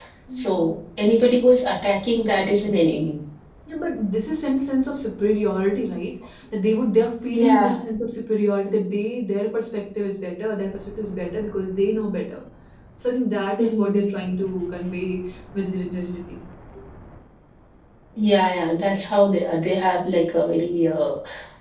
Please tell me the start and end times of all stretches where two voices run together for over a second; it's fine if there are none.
none

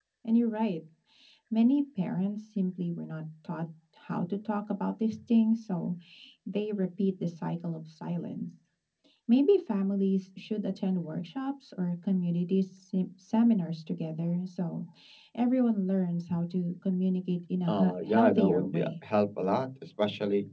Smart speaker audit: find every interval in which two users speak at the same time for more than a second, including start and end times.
17.7-18.9

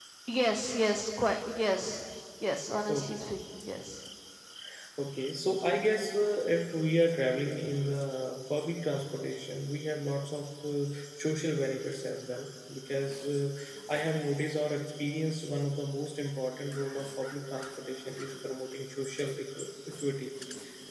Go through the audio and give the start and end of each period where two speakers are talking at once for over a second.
none

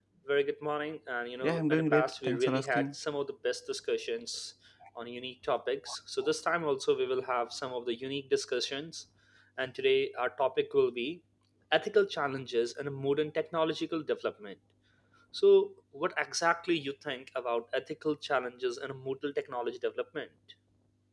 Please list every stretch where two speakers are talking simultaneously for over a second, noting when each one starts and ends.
1.4-2.9

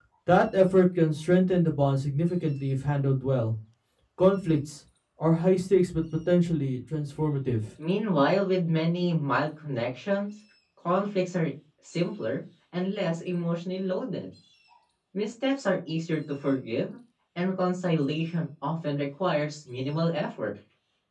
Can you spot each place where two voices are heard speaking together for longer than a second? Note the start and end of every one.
none

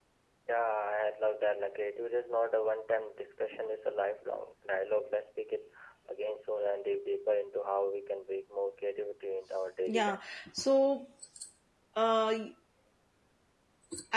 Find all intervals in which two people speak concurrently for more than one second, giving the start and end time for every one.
none

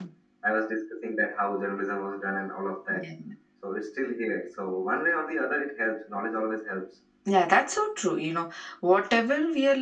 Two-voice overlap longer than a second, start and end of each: none

